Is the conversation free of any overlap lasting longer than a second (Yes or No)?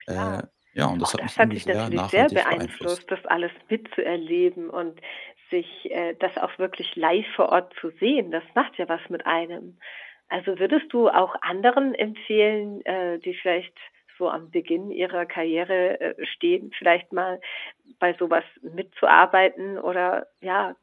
No